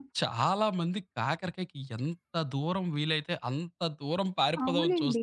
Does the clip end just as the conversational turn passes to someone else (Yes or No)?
Yes